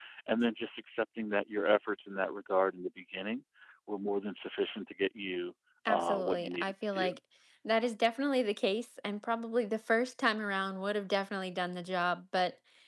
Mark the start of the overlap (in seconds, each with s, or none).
5.8 s